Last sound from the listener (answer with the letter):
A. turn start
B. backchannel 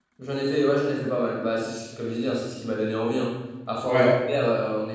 B